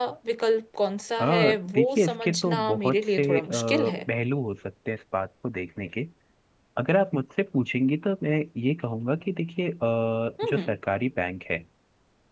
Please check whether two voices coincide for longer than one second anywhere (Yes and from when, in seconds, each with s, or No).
Yes, from 1.2 s